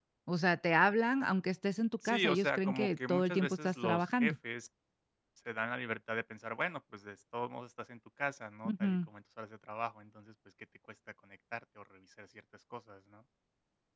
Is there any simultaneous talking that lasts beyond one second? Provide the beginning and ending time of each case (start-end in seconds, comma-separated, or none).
2.0-4.3